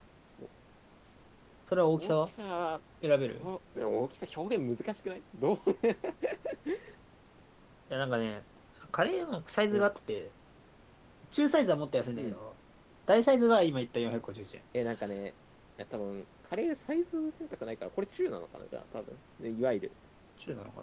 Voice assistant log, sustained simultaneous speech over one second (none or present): none